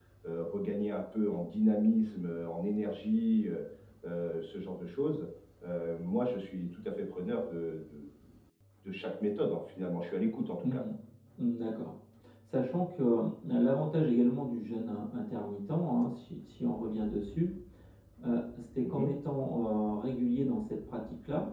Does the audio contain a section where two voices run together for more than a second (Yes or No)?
No